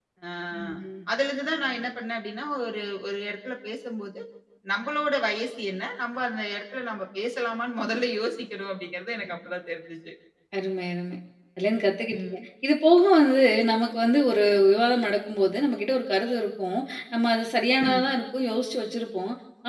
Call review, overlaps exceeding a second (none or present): none